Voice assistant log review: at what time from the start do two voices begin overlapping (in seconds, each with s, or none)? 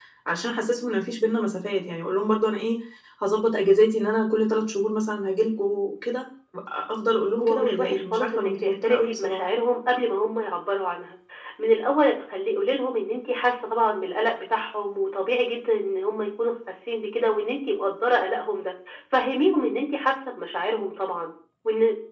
7.4 s